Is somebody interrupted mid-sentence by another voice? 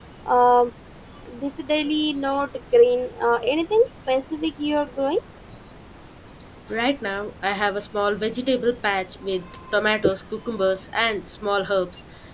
No

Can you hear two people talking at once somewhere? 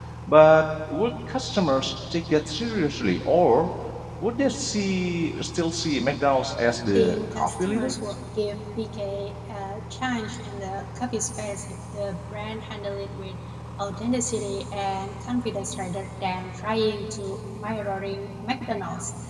Yes, from 6.7 s

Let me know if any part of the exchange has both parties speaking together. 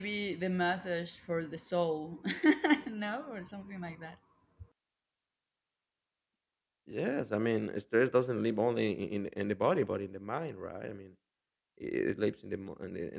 No

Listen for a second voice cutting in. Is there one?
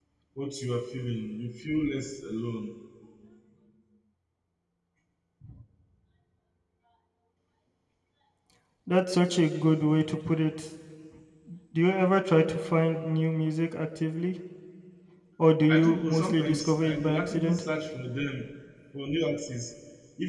Yes, from 15.7 s

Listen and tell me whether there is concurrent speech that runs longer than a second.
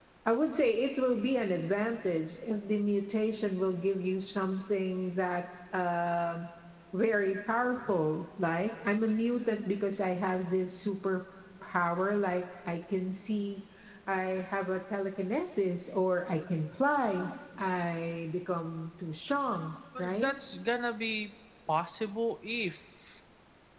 No

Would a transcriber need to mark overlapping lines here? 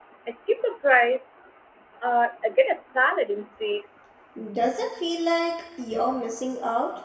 No

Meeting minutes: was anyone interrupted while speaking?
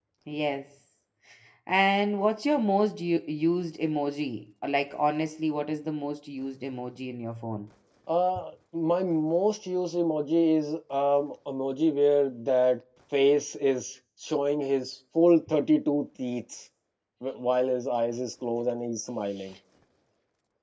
No

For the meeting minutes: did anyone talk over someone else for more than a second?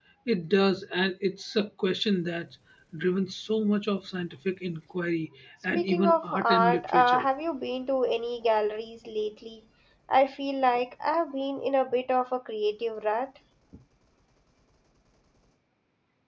Yes, from 5.8 s

